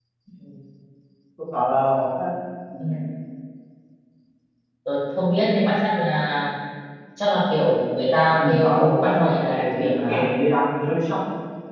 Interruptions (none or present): present